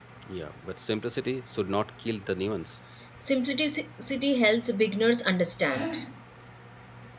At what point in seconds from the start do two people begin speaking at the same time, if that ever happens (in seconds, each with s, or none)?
none